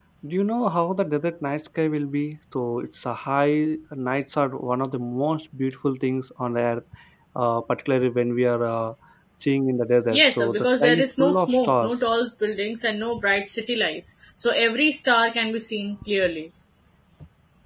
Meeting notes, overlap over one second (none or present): present